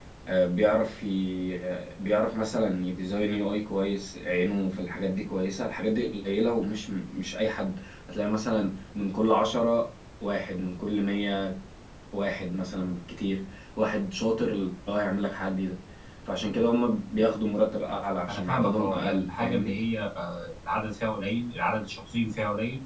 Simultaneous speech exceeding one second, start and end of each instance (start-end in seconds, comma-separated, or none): 18.3-19.7